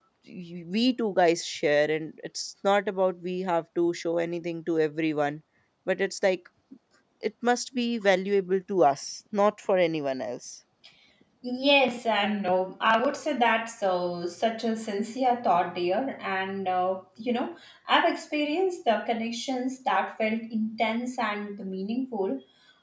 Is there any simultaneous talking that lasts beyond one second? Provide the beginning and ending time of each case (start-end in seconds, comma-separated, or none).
none